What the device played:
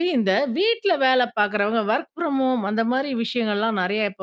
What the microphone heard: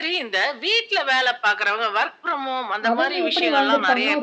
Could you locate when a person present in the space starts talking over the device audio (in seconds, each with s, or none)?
2.9 s